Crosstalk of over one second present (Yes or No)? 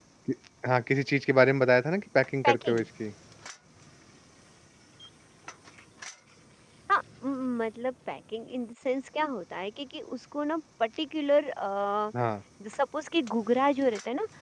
No